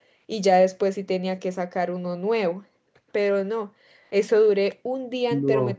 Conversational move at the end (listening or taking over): listening